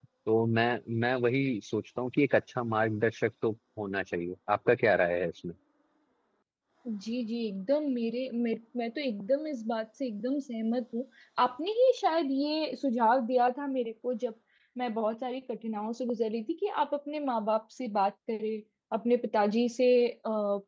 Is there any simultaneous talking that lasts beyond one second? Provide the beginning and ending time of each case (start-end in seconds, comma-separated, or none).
none